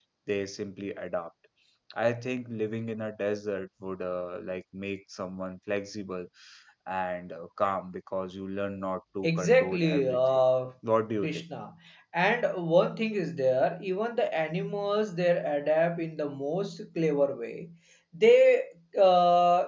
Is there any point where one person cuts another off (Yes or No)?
Yes